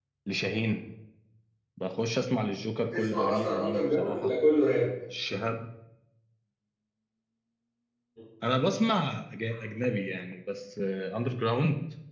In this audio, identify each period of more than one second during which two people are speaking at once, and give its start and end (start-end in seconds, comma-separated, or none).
2.9-4.3